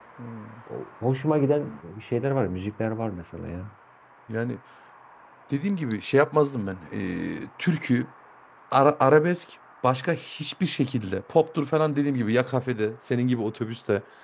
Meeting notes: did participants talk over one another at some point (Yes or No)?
No